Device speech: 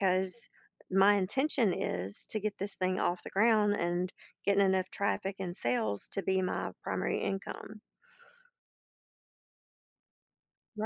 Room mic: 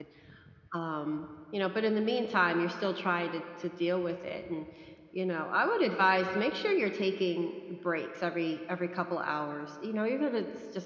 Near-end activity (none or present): present